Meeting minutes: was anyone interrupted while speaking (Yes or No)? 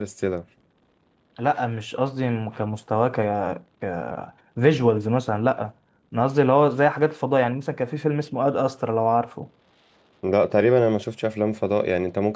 No